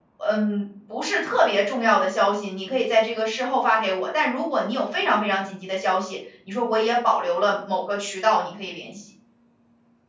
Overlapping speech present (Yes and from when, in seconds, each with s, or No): No